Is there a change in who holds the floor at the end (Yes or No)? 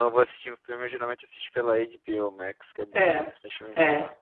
Yes